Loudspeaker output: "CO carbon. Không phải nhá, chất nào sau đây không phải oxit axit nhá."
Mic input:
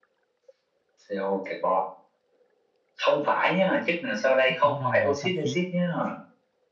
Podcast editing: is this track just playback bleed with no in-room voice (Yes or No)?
No